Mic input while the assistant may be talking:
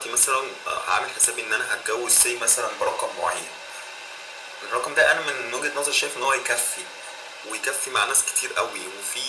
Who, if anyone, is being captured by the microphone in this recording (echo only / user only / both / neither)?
echo only